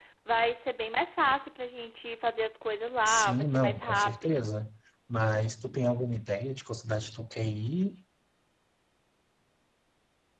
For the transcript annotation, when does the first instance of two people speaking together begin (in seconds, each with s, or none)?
3.0 s